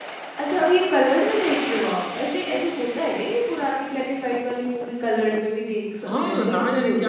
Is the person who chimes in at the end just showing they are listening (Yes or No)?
No